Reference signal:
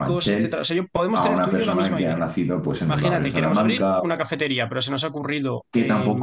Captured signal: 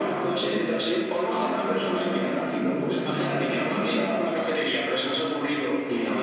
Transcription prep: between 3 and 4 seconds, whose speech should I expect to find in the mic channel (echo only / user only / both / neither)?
echo only